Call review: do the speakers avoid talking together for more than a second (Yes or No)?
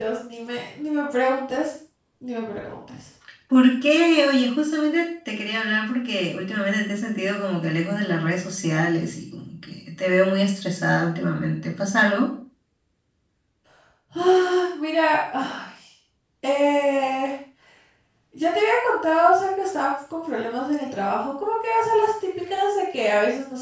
Yes